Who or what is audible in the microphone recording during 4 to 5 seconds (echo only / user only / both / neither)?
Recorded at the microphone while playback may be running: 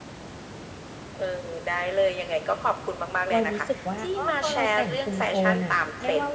both